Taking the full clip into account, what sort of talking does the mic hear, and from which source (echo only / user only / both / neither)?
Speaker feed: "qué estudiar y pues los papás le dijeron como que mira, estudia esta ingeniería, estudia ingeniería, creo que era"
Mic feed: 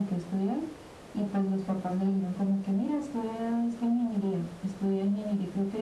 echo only